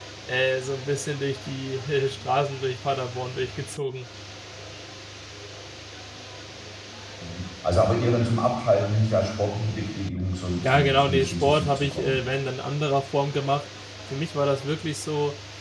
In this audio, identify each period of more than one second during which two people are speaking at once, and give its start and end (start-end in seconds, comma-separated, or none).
10.6-12.2